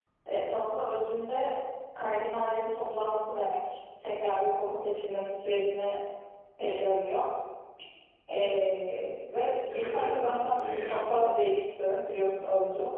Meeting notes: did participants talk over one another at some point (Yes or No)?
Yes